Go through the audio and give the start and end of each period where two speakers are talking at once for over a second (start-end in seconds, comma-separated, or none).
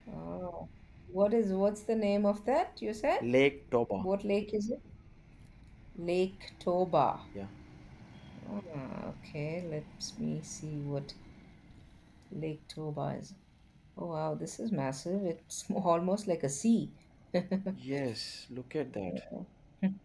none